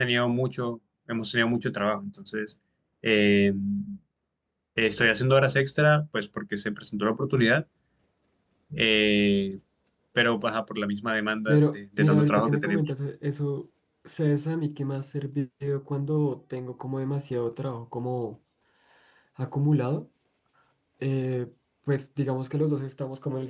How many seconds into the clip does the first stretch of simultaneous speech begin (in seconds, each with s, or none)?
11.5 s